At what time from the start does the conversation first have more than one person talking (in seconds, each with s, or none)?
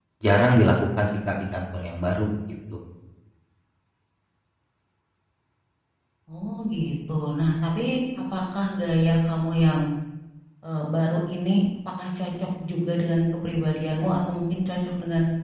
none